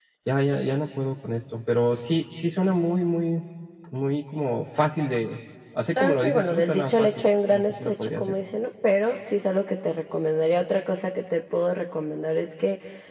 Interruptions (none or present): present